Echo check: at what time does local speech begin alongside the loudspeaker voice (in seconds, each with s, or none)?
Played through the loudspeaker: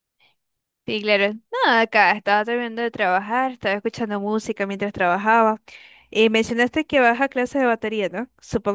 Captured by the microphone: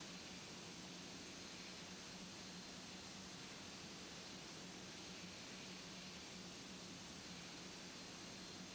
none